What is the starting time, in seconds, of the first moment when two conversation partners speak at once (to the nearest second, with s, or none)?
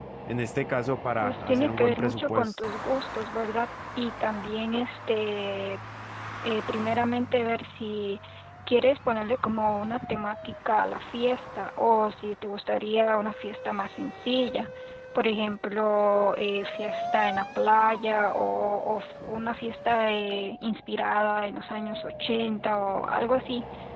1 s